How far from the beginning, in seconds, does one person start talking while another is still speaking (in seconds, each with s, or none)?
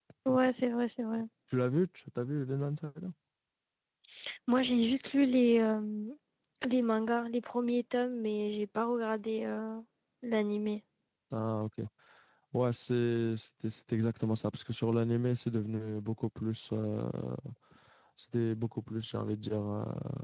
none